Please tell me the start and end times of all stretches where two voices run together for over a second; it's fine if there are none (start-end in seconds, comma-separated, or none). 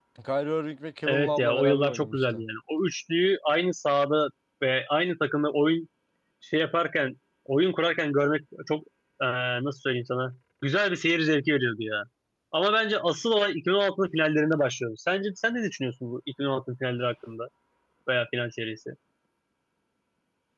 1.1-2.4